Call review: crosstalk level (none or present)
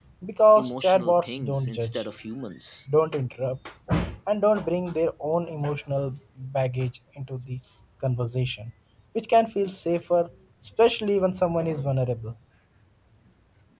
present